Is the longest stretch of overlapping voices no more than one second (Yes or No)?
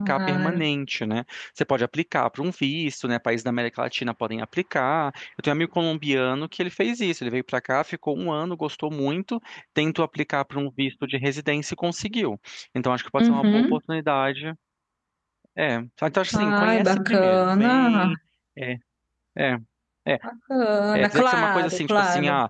No